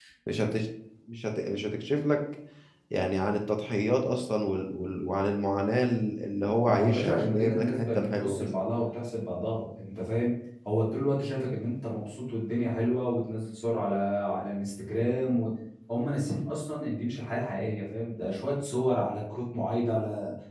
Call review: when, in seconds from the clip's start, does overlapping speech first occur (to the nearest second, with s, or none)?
7 s